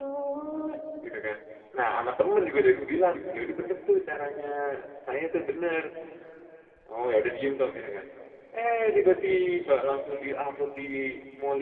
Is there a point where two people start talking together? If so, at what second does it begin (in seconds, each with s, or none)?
none